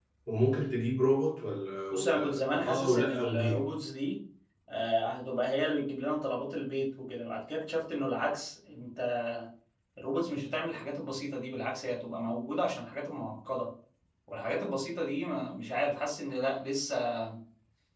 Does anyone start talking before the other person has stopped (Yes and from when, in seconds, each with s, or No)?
Yes, from 1.9 s